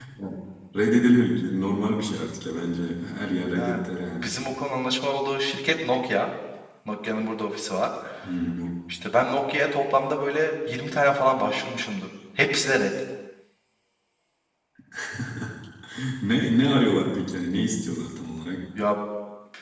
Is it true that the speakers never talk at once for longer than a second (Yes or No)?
Yes